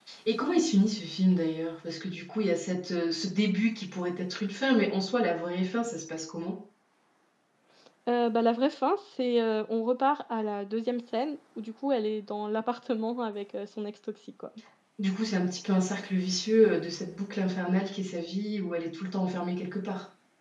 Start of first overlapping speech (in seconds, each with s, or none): none